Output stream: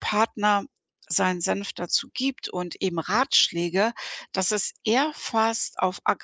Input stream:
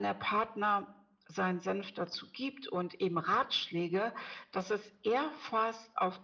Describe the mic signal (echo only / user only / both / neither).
echo only